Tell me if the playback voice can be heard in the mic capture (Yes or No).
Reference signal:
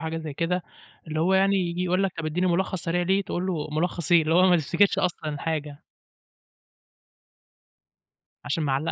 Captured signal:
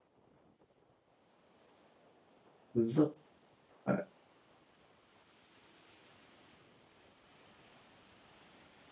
No